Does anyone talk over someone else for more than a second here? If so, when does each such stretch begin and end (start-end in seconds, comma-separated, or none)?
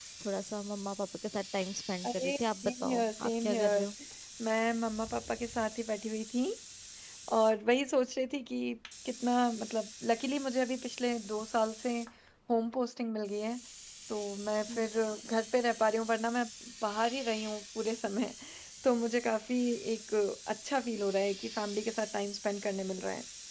2.0-3.9